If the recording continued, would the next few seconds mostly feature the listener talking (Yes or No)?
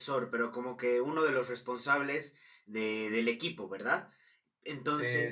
Yes